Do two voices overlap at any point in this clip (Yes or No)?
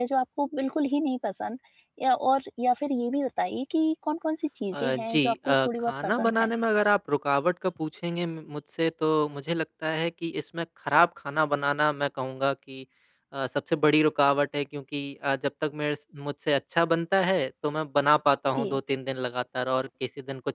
Yes